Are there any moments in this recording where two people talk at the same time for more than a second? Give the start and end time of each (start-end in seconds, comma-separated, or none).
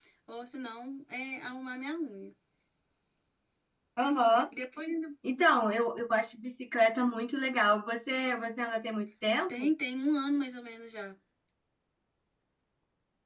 none